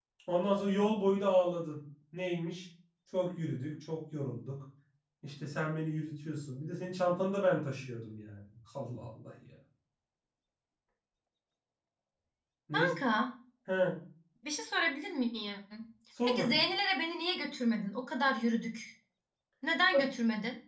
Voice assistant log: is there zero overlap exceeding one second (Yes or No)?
Yes